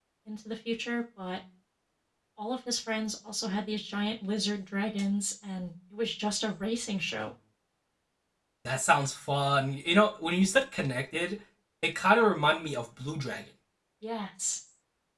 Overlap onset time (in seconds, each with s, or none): none